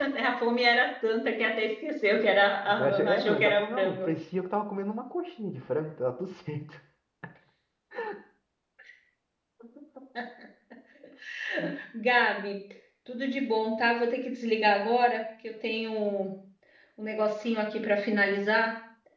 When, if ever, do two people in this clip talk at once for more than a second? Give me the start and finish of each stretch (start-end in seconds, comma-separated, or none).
2.8-4.1